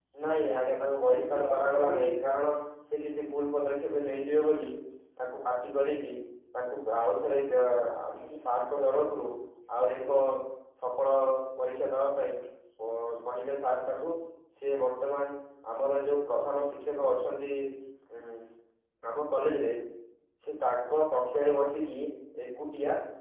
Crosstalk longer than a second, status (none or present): present